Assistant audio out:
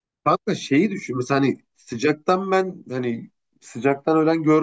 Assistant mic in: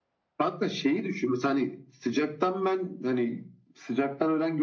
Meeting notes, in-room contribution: none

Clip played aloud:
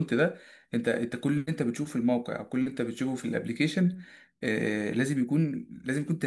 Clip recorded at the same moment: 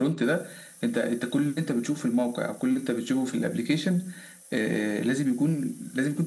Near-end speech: none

